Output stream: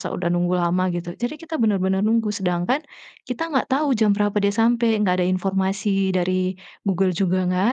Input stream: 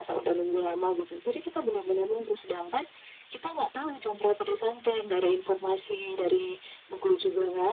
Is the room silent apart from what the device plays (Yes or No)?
Yes